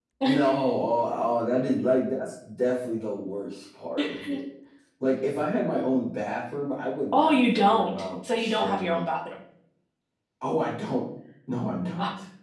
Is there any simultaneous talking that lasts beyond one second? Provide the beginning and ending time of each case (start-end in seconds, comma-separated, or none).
7.1-9.0